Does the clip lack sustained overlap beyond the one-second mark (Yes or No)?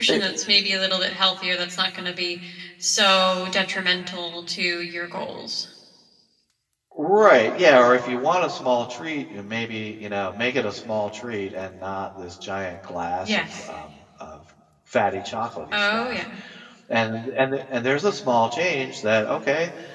Yes